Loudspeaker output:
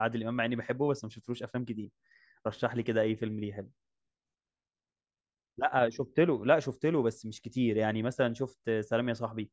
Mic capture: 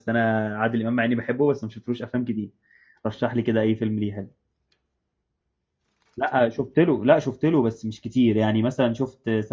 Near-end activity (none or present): none